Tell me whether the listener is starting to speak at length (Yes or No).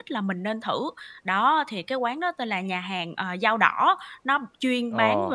No